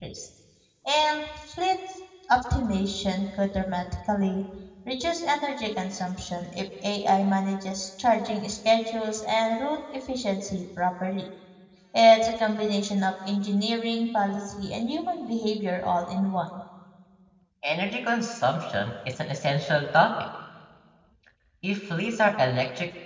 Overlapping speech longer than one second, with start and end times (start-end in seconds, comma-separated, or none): none